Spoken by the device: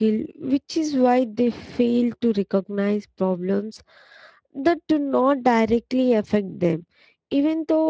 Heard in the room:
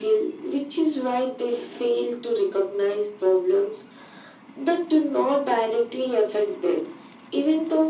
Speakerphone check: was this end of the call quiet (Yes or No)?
Yes